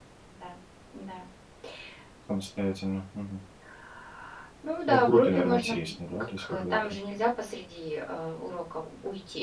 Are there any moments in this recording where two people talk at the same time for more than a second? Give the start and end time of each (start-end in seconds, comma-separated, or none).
4.9-7.0